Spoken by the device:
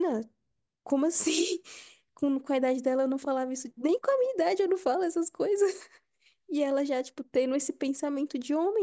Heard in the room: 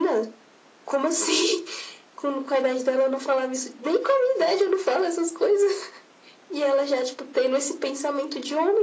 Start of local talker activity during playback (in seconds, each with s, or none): none